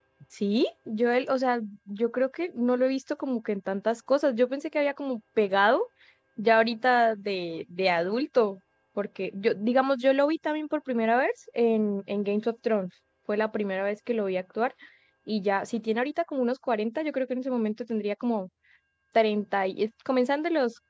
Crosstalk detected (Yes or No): No